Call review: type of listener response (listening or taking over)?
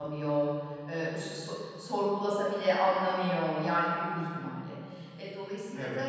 listening